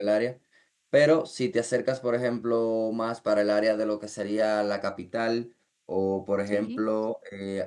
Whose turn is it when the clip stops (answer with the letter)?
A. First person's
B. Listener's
A